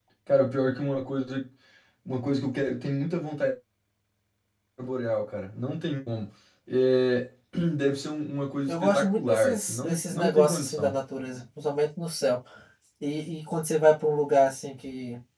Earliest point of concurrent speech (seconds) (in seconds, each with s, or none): 8.7 s